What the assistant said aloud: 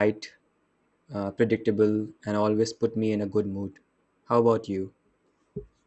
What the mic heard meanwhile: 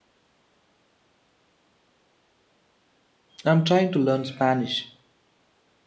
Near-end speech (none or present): present